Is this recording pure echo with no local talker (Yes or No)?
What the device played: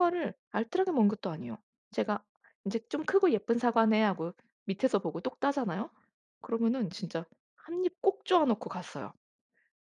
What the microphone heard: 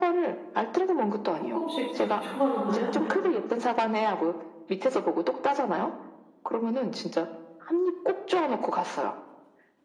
No